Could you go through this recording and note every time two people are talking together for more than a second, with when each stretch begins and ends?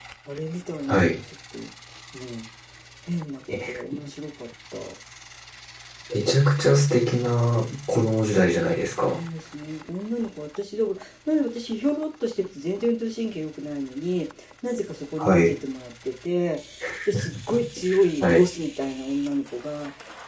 none

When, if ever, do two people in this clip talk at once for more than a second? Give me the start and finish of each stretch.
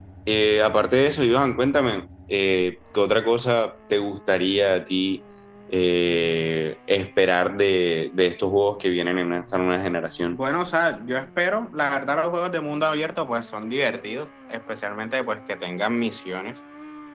none

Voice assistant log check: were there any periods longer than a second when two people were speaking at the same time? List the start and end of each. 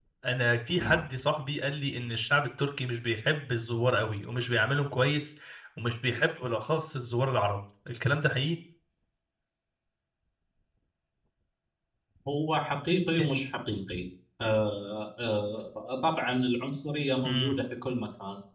none

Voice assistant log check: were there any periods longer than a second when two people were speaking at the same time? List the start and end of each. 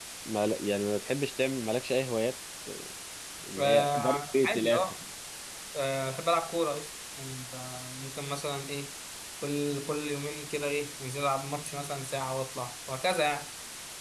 3.6-5.0

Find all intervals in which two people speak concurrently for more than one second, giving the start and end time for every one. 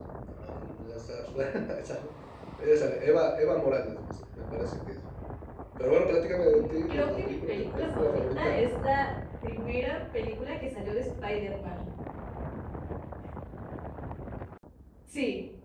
6.5-8.6

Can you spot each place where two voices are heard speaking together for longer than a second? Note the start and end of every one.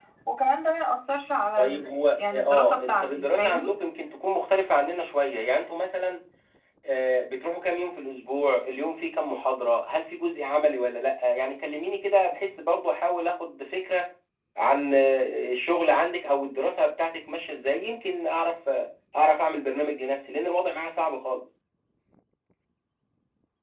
1.6-3.6

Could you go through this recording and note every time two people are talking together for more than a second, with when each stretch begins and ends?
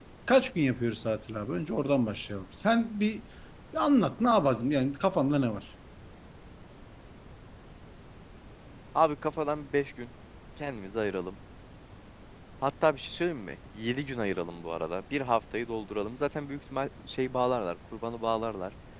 none

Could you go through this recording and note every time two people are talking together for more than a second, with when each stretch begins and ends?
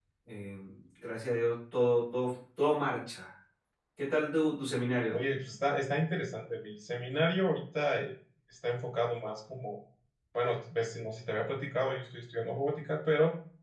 none

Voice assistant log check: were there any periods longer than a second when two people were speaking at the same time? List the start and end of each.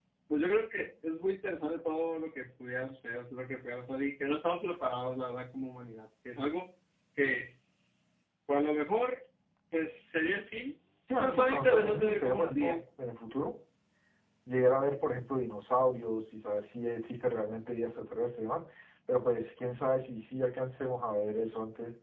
11.2-12.8

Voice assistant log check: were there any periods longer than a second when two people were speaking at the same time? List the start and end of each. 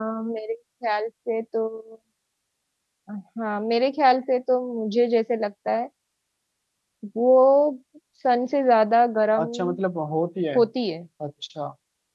none

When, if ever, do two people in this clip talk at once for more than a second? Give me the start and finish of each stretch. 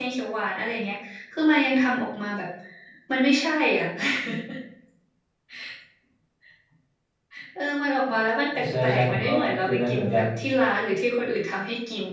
8.8-10.2

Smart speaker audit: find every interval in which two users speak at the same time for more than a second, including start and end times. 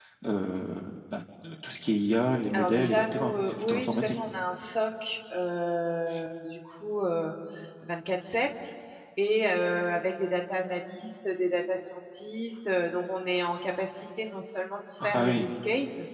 2.5-4.2

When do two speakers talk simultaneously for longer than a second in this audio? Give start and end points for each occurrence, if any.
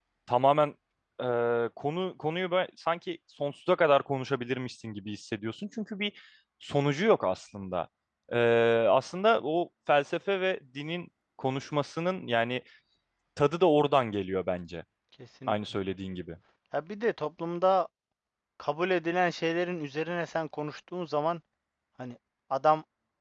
none

